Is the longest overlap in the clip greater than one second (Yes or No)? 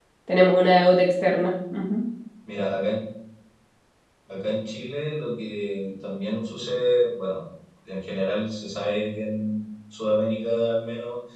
No